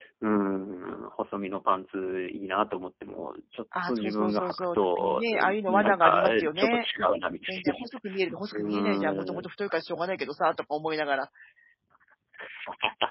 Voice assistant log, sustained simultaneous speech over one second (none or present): present